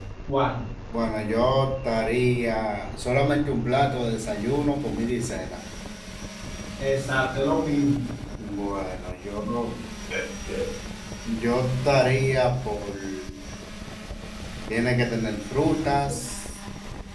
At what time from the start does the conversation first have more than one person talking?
none

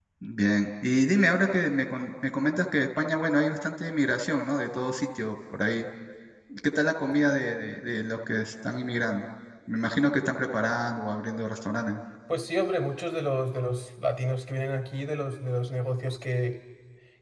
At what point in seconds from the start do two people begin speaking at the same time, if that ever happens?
none

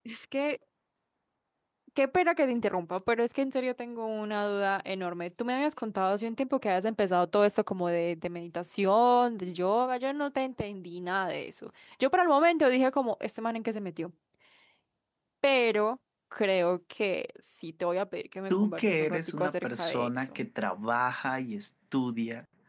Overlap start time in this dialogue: 18.5 s

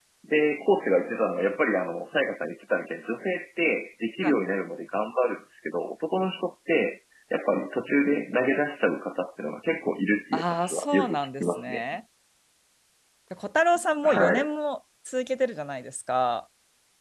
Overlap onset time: 10.3 s

